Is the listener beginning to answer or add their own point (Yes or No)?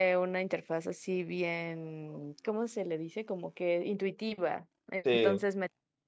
No